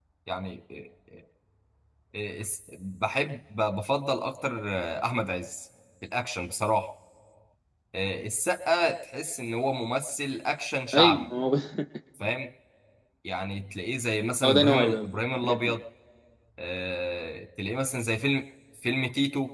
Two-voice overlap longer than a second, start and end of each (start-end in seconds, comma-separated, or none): 14.4-15.7